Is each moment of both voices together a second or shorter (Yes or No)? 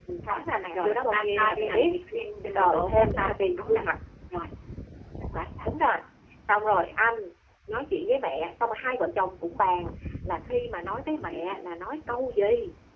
No